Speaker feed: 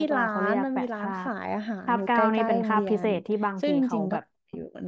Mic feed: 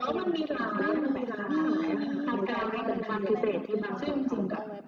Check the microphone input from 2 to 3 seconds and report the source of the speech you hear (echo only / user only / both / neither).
both